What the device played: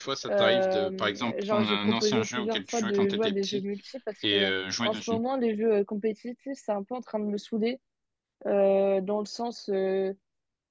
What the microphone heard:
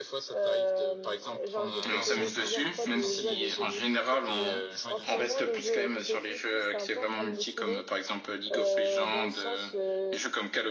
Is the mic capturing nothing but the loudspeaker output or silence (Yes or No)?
No